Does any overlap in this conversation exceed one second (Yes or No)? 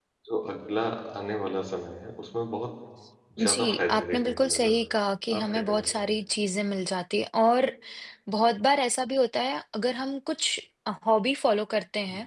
Yes